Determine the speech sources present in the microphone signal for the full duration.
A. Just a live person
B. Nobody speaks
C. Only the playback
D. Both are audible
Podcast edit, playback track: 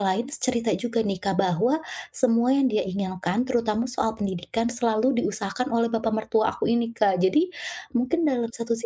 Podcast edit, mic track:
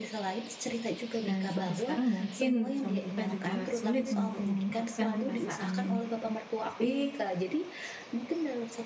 D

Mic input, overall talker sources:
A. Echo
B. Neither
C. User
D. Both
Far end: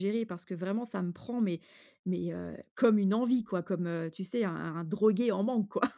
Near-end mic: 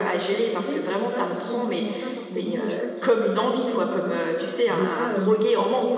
D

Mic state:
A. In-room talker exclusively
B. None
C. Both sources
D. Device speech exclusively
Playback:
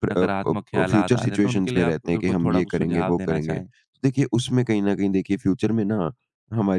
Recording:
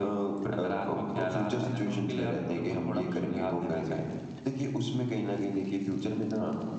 D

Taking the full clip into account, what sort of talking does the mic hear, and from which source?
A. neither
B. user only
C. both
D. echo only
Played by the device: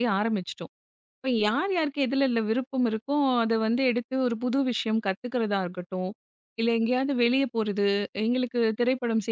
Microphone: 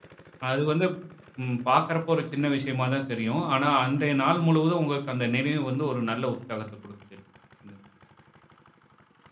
B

